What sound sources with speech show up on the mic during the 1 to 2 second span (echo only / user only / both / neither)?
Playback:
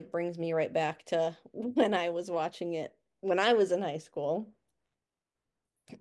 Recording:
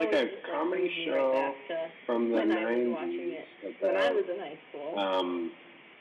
both